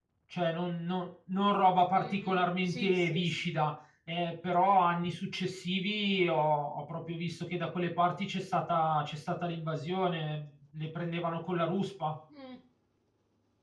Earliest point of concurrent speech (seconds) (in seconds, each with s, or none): 2.0 s